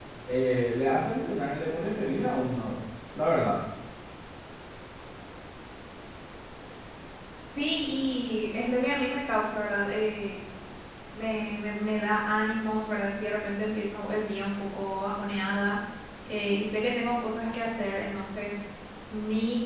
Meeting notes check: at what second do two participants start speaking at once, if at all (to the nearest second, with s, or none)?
none